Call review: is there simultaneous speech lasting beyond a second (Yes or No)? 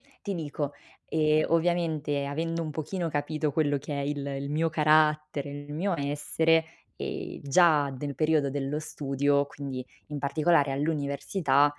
No